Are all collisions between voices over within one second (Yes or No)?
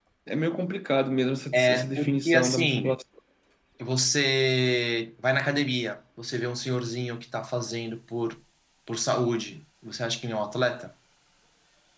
No